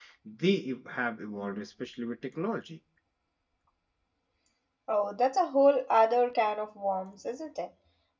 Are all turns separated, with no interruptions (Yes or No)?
Yes